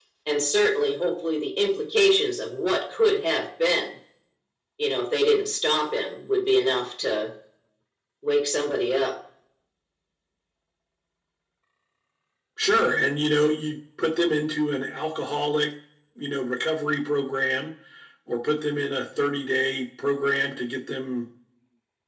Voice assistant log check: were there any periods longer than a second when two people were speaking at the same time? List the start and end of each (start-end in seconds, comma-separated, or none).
none